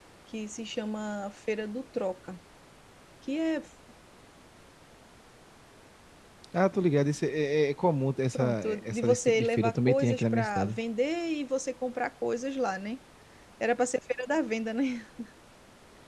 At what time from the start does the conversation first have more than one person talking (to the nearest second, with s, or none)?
8 s